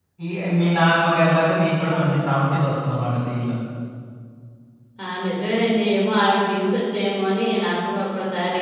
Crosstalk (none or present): none